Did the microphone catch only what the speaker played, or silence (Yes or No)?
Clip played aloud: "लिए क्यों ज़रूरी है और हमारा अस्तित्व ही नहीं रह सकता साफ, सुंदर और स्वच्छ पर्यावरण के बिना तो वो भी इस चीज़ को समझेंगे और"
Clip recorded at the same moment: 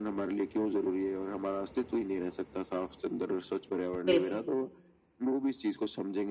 No